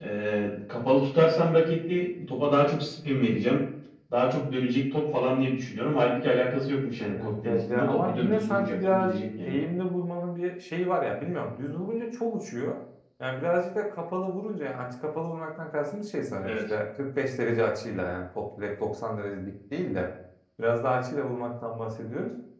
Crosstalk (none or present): present